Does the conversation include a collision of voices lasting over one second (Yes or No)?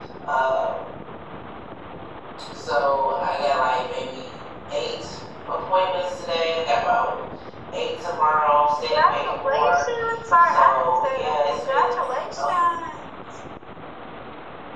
Yes